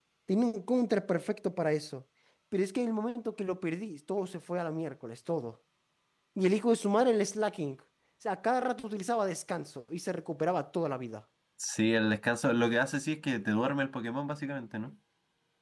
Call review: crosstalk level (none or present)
none